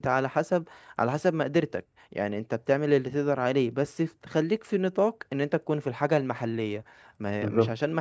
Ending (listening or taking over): listening